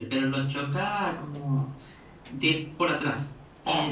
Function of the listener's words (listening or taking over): listening